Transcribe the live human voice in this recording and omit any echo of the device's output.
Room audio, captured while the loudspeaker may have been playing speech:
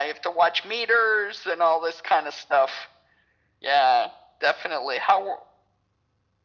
none

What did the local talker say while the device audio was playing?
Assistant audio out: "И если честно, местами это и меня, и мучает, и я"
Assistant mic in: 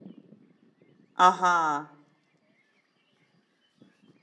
Ага.

